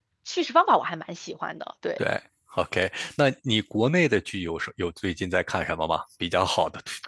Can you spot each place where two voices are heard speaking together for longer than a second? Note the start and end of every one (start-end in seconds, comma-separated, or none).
none